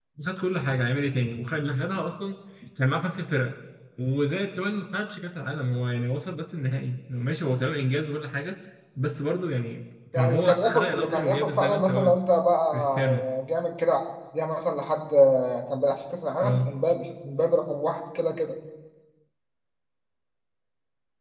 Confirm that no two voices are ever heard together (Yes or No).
No